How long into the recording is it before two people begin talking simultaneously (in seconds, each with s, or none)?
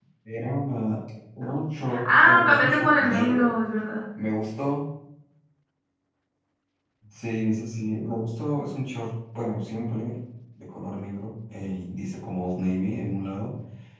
1.9 s